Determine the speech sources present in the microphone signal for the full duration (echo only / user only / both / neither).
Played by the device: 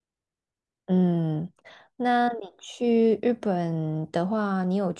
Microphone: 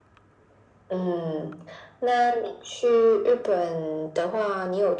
echo only